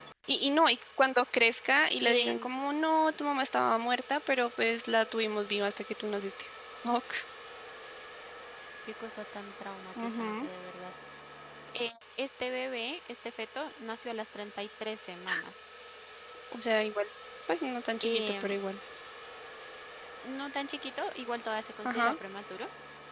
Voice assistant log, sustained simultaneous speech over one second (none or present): none